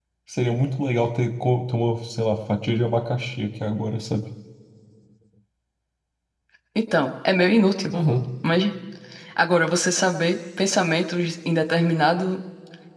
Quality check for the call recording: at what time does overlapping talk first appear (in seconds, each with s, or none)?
none